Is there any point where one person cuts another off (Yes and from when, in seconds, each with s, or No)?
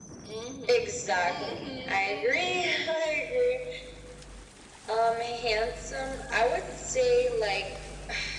Yes, from 1.3 s